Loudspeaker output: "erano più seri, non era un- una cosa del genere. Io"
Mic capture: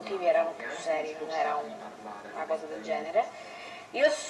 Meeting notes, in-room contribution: present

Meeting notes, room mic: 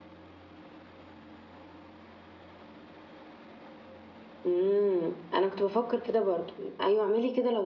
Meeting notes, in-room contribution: present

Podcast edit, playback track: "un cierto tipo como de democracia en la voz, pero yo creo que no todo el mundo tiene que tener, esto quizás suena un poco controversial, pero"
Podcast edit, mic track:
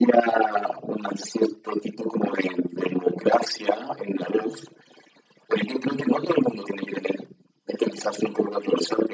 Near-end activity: none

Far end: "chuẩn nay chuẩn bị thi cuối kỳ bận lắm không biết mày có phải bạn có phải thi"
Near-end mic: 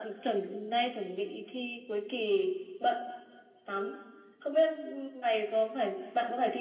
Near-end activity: none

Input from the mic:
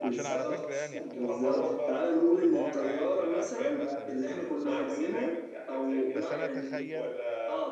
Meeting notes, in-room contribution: present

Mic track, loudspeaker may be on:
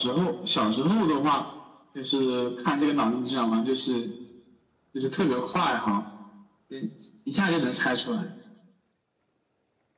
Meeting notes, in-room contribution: none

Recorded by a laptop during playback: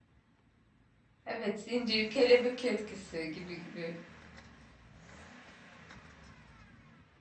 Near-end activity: present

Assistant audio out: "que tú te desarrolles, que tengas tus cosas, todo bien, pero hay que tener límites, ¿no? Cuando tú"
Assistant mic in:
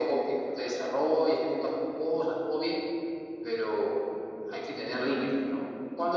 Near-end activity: none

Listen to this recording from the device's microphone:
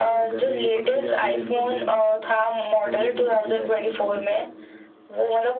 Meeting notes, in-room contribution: present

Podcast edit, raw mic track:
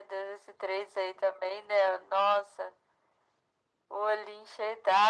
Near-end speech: none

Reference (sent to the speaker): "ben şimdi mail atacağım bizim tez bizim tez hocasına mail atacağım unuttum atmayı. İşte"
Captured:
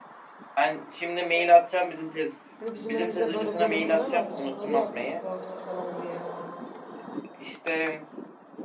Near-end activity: present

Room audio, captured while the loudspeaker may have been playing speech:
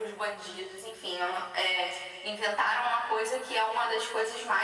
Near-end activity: none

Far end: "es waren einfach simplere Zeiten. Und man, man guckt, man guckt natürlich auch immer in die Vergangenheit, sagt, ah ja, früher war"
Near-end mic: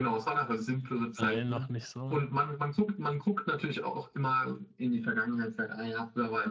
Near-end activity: present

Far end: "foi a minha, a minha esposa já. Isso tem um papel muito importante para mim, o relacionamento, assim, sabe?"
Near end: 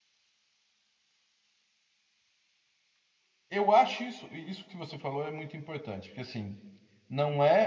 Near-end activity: present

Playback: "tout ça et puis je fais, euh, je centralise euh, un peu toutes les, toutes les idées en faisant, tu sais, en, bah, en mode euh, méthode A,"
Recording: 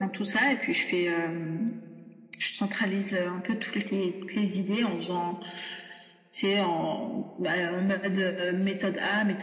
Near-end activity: none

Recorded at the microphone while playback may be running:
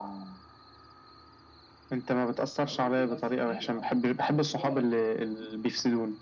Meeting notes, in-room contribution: present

